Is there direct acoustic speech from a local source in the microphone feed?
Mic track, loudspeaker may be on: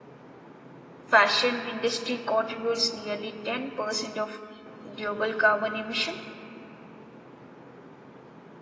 Yes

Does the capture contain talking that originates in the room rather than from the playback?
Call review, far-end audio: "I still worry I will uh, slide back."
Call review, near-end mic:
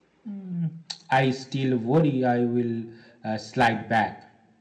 No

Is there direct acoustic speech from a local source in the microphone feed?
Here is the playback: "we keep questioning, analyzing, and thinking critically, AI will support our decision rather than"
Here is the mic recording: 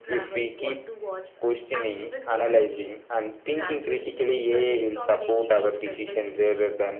Yes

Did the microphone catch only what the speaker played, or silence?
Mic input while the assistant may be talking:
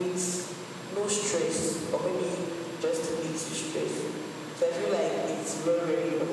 Yes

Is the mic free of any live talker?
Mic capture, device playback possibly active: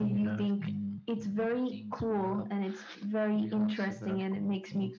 Yes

